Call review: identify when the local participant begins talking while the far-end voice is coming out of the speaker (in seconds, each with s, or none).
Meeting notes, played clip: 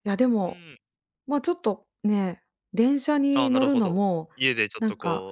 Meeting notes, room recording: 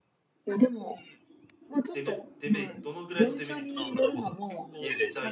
1.9 s